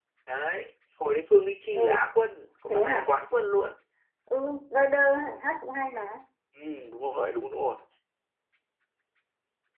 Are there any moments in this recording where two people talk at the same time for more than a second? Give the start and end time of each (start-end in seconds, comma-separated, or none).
none